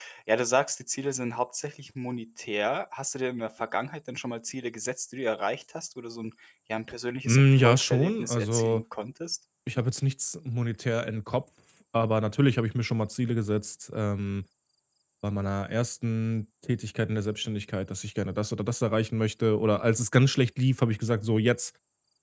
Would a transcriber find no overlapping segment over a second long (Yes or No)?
No